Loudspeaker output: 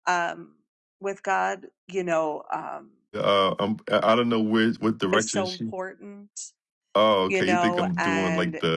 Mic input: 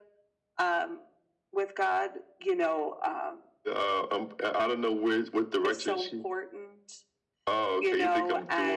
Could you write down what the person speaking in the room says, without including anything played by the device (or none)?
none